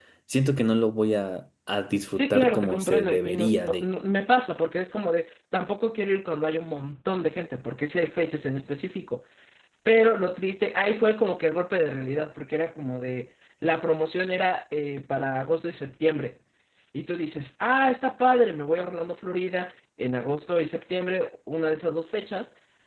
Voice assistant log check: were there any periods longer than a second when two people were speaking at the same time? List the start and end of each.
2.1-3.8

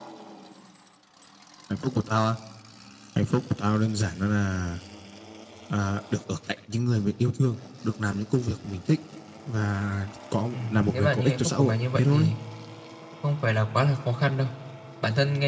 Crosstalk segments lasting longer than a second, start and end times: 10.5-12.3

